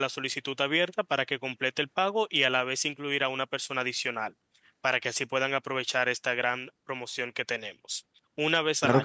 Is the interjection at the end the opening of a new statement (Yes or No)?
Yes